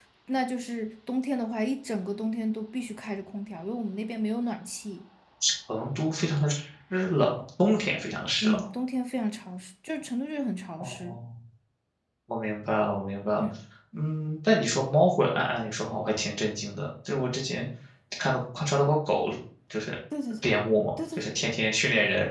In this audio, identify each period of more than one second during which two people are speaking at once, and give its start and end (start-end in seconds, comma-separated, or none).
none